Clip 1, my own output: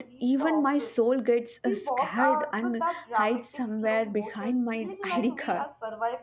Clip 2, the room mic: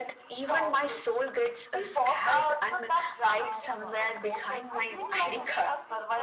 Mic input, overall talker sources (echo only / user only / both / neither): both